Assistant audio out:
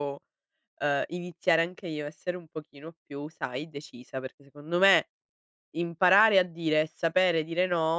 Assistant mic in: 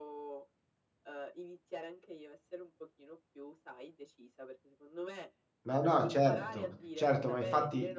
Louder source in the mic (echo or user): user